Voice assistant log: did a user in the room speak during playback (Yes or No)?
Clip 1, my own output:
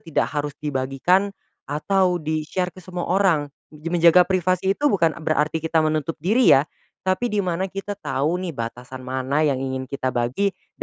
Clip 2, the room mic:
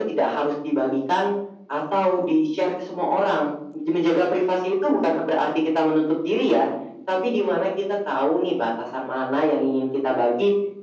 No